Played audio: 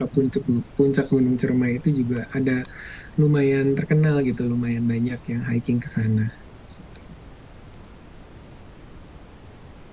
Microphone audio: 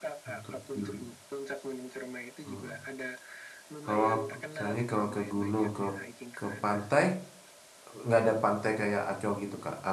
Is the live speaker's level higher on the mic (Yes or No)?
Yes